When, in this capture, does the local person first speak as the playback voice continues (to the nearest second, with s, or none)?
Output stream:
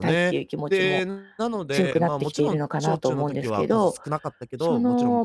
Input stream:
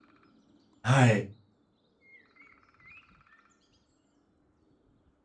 1 s